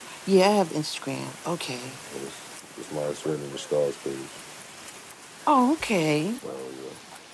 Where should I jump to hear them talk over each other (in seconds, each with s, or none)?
none